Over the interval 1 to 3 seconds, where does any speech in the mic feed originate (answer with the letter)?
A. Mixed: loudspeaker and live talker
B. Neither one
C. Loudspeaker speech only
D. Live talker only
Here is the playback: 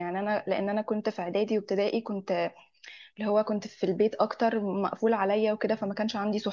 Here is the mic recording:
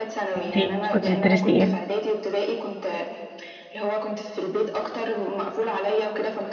A